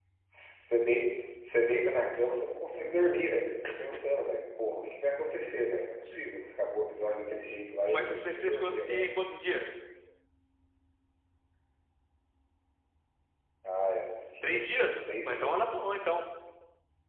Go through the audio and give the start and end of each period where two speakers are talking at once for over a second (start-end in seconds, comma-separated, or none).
7.9-9.1, 14.4-15.7